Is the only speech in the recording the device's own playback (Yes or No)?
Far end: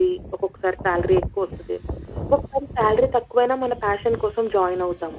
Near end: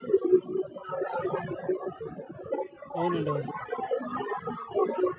No